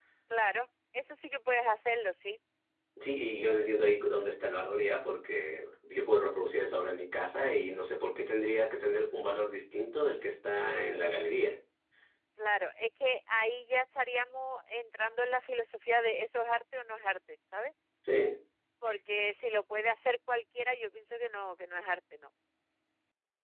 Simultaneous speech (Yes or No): No